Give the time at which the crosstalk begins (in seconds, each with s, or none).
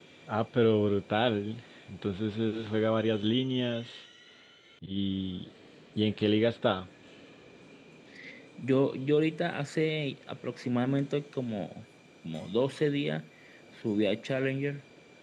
none